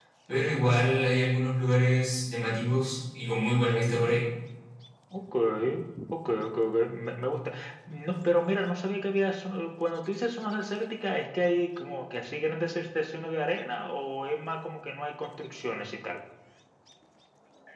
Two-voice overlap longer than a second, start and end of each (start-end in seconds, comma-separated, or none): none